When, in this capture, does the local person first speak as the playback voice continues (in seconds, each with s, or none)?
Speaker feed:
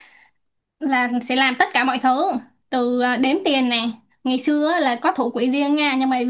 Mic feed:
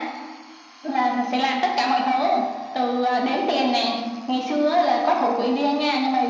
none